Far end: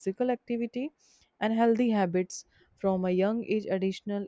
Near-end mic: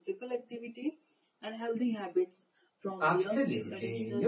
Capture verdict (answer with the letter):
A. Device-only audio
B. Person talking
B